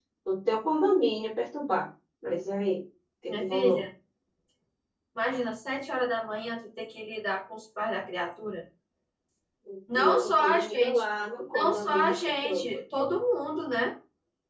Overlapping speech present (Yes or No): Yes